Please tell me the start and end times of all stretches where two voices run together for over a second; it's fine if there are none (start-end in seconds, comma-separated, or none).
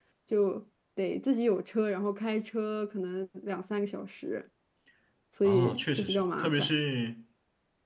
5.4-6.7